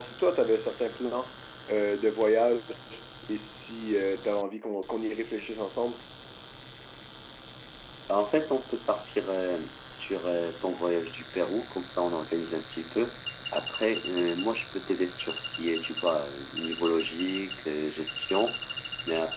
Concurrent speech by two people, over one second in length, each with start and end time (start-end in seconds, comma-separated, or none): none